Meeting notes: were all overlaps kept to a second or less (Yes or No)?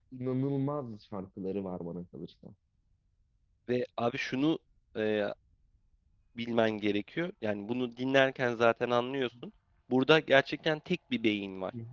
Yes